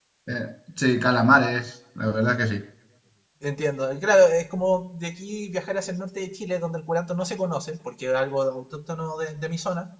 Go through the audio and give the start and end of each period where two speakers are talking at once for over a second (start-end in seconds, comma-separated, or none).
none